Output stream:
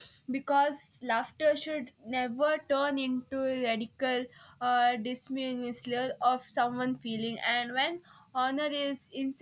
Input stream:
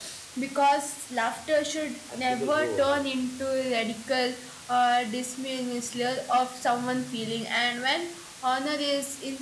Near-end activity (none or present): present